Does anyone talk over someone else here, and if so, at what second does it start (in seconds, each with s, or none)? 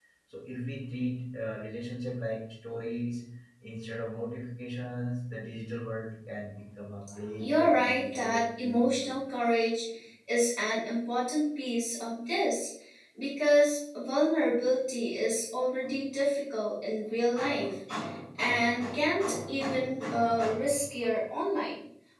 7.4 s